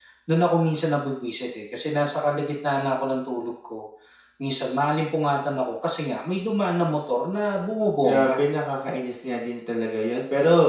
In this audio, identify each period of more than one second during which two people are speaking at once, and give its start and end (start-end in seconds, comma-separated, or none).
none